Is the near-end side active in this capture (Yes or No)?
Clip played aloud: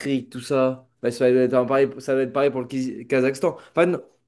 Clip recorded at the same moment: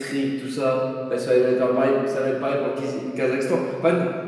No